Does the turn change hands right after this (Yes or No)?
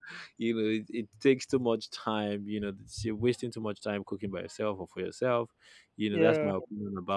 No